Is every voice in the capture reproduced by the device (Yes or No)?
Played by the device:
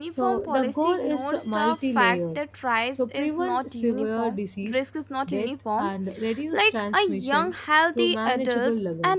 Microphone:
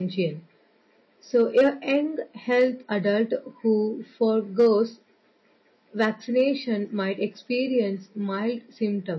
No